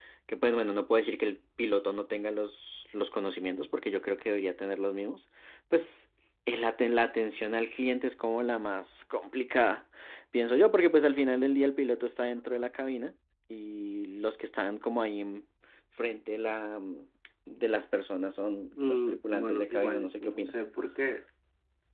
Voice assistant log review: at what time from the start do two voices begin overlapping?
18.7 s

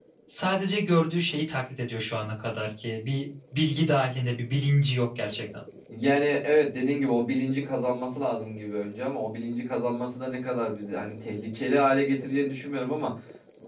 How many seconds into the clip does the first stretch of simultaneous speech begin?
none

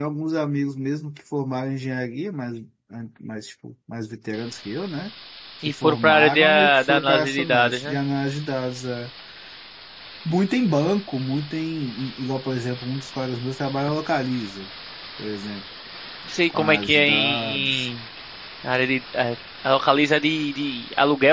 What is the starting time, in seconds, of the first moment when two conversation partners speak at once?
5.7 s

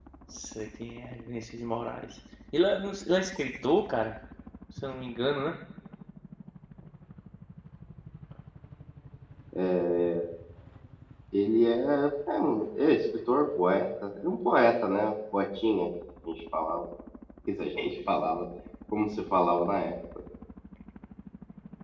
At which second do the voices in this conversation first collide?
none

